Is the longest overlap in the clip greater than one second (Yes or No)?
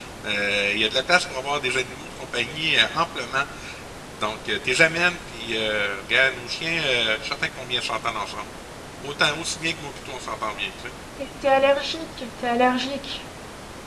No